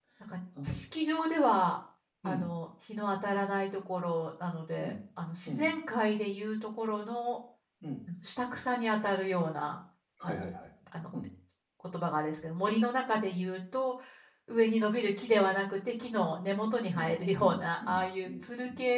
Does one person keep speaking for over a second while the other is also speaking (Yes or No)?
Yes